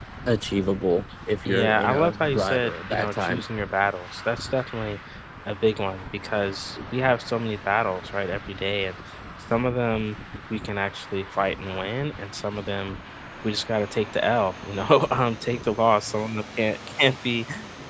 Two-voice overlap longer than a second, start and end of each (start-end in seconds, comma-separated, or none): 1.4-3.4